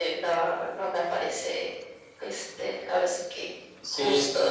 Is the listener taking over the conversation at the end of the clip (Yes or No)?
Yes